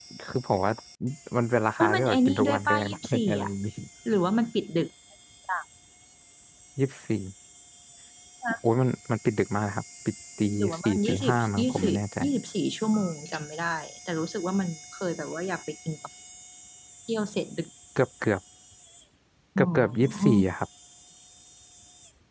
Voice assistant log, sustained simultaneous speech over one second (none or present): present